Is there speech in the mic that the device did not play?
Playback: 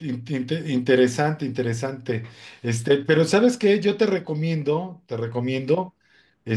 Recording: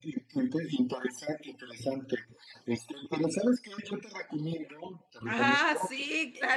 Yes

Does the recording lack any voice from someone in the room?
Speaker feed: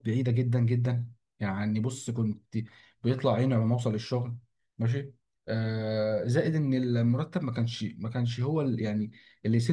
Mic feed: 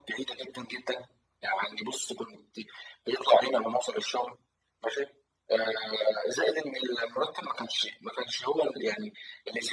Yes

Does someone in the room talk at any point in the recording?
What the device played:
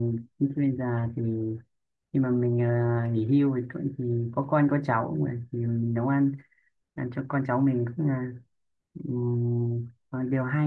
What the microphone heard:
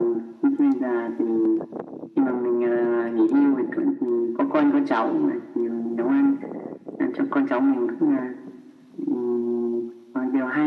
No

